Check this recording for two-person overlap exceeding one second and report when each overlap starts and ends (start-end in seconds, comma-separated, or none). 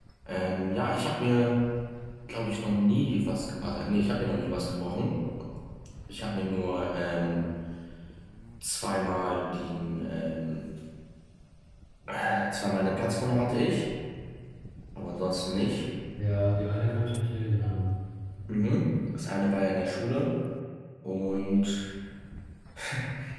none